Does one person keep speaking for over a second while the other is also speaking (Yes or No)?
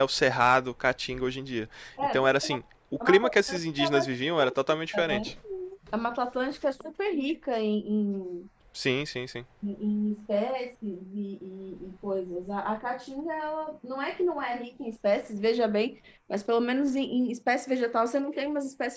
Yes